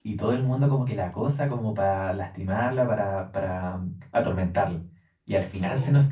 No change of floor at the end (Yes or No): Yes